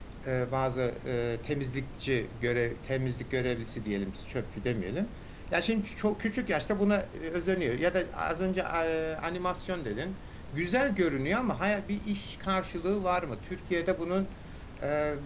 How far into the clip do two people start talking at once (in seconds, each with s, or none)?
none